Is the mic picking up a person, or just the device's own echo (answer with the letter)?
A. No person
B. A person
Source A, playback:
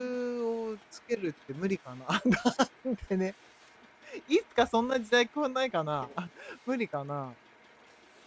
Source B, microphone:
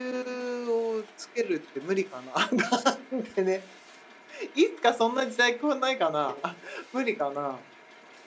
A